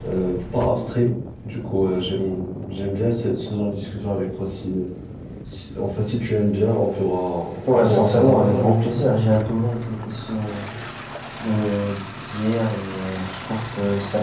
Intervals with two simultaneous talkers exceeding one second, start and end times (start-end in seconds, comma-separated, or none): 7.7-8.9